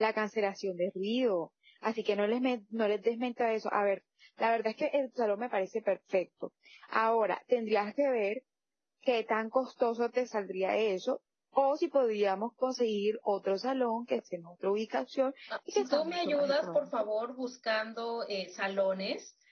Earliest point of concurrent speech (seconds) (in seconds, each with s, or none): 15.5 s